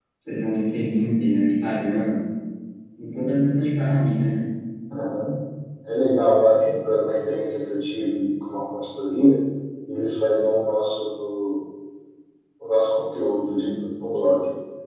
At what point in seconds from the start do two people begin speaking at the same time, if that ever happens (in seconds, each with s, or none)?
none